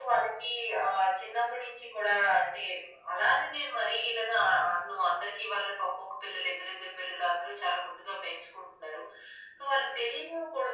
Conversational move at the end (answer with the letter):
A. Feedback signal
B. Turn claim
A